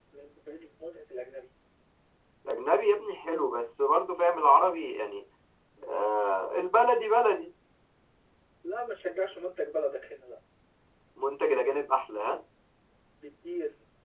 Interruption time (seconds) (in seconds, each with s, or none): none